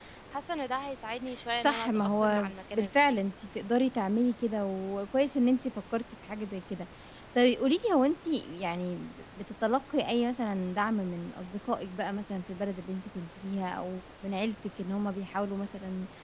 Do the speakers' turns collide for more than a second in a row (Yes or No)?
Yes